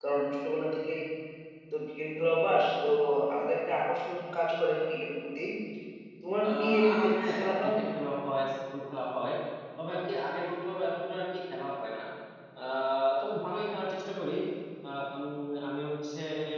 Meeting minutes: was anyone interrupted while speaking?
Yes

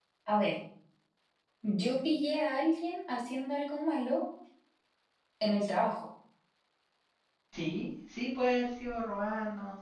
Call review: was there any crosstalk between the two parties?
No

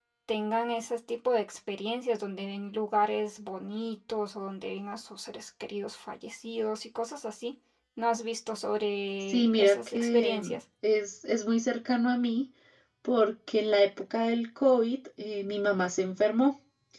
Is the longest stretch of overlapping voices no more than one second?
No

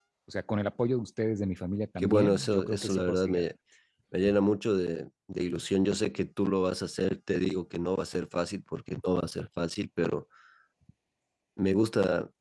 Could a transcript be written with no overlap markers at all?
No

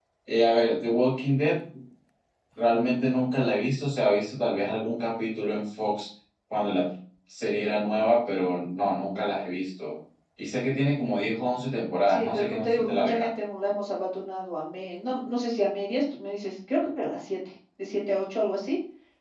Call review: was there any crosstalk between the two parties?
Yes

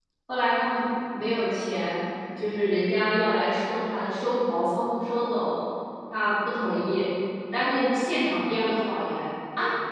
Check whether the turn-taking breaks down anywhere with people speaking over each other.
No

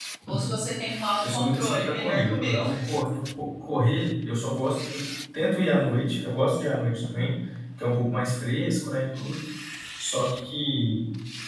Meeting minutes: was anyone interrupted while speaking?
Yes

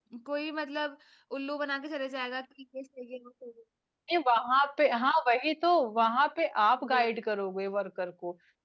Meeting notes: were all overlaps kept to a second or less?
Yes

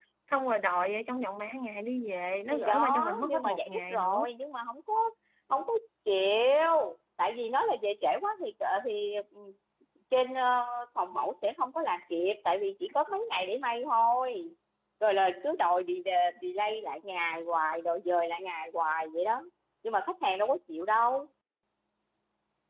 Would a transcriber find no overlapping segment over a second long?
No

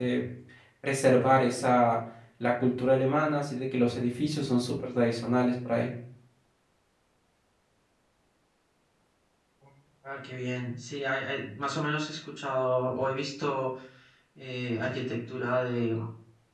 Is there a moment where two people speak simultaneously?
No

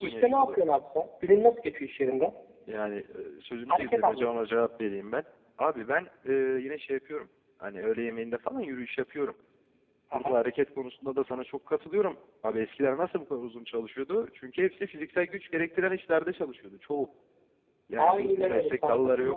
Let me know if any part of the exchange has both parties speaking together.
Yes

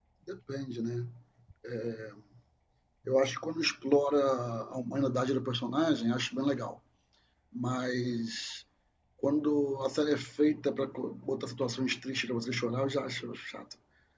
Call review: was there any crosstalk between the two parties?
No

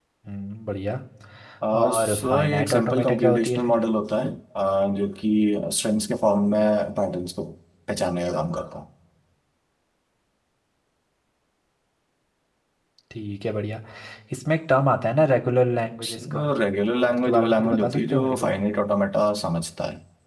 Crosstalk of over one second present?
Yes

